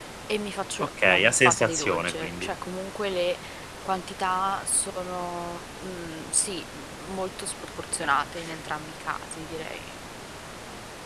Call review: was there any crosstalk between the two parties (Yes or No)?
Yes